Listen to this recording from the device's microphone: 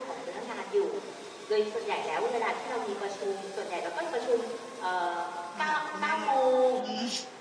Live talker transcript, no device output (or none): มาหาคุณแม่ อืม